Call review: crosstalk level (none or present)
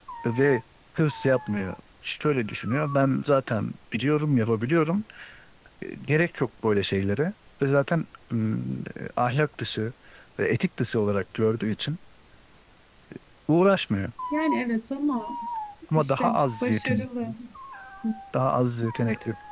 present